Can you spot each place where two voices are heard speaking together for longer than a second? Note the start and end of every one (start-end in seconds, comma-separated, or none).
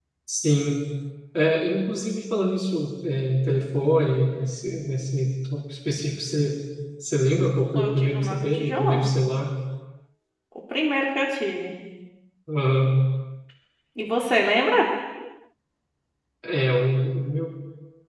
7.8-9.1